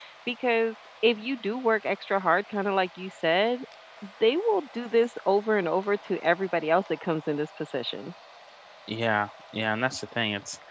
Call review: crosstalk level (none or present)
none